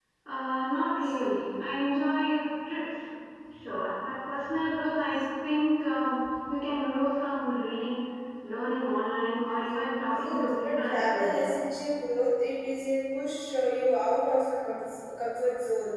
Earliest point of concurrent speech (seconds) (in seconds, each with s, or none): 10.1 s